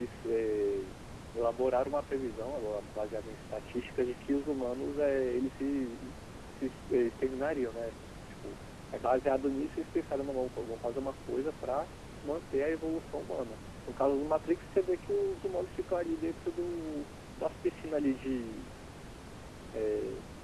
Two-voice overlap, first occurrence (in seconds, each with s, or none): none